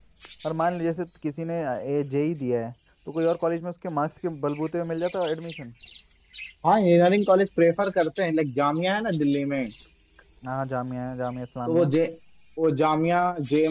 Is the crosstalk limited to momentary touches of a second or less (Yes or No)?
Yes